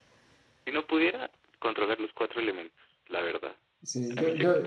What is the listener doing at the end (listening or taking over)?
taking over